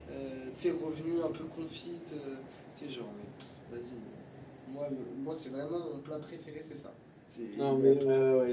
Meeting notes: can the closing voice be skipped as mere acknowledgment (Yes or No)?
No